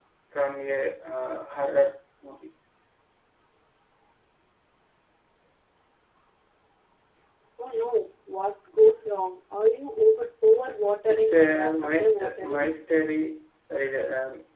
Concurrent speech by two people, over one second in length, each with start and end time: 11.1-12.7

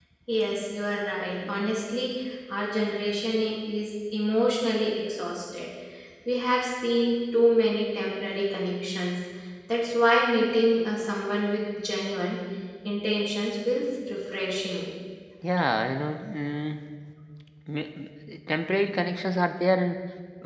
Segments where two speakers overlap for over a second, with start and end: none

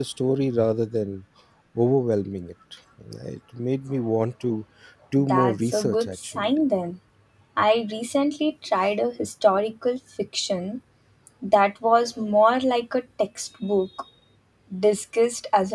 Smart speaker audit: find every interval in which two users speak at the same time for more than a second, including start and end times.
5.2-6.5

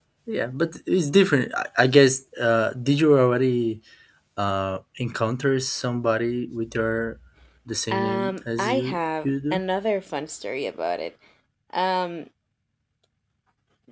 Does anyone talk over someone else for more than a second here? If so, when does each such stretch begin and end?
7.9-9.6

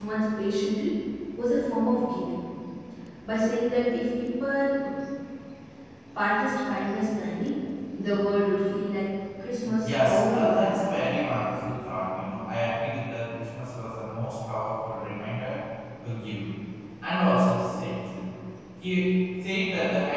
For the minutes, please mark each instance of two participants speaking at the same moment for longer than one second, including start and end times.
9.6-10.8

